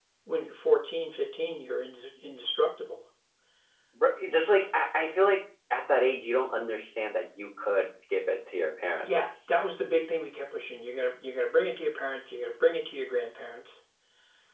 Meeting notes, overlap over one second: none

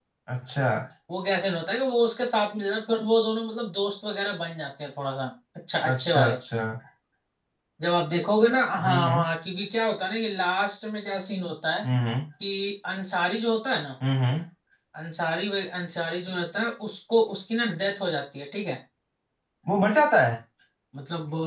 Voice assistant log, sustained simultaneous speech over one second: none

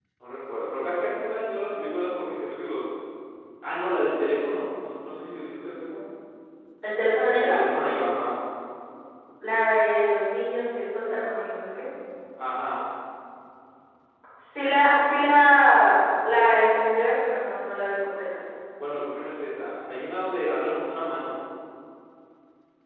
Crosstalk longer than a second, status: none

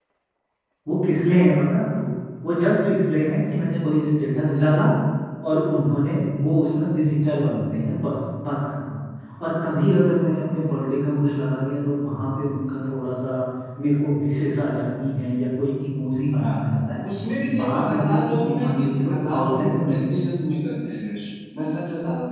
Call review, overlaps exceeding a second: present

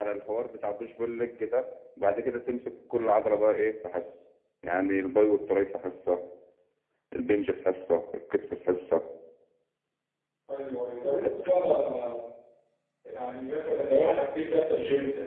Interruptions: none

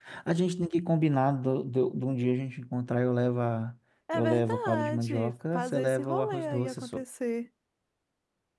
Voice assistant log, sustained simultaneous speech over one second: present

